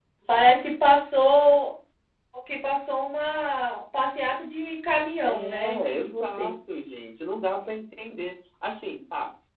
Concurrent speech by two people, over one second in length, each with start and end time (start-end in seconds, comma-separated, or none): 5.2-6.5